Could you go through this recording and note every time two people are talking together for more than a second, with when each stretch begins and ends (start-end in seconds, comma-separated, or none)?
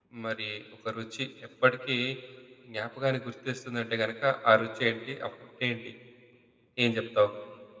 none